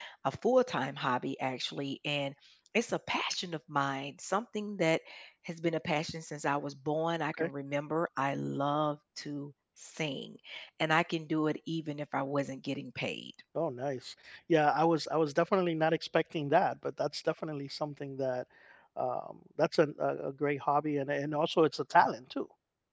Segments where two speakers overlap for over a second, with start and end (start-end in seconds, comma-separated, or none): none